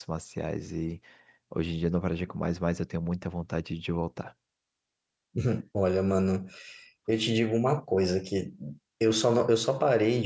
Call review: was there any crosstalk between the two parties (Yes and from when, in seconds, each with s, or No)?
No